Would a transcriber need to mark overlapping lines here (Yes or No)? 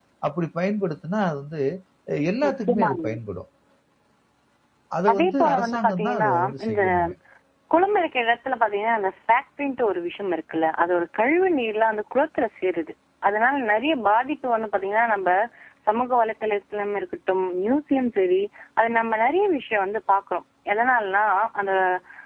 Yes